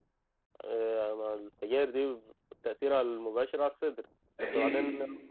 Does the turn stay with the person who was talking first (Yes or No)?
Yes